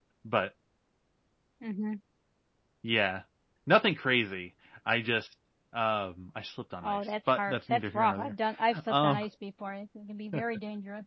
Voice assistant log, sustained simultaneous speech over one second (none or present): present